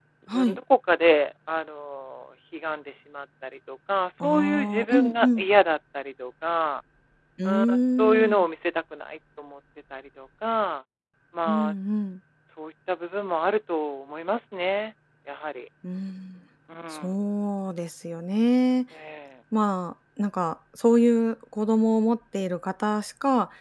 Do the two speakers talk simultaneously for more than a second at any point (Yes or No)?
Yes